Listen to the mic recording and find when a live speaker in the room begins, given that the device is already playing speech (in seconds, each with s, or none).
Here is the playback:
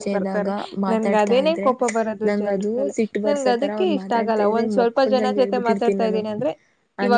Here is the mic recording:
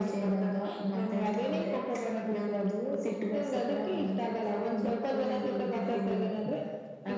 none